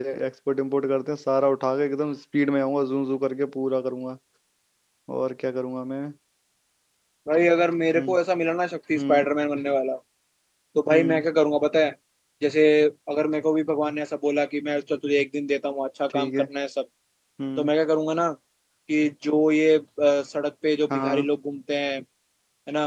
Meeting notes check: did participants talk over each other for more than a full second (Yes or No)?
No